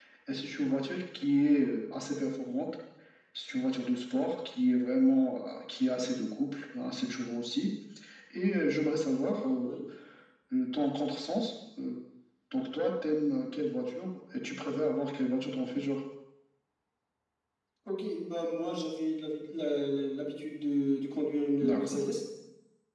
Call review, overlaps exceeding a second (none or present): none